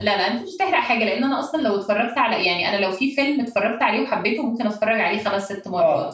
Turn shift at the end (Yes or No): Yes